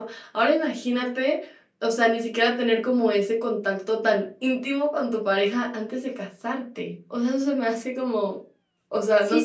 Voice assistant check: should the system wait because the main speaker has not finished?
No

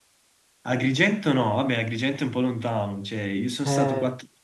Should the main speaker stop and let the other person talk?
No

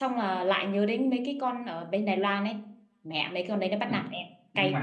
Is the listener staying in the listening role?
No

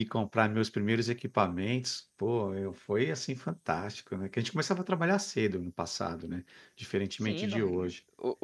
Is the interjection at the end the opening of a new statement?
Yes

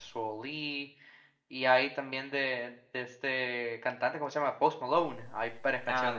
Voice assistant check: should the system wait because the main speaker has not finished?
No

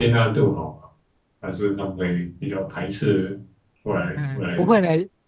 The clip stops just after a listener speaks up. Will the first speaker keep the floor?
No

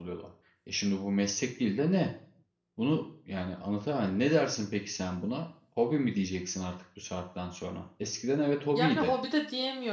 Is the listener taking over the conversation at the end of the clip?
Yes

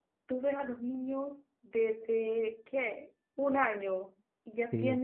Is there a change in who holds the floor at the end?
No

